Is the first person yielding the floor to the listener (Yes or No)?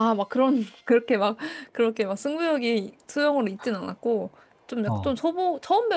No